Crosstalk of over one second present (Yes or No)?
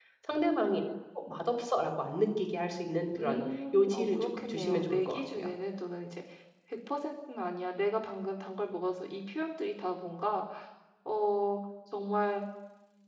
Yes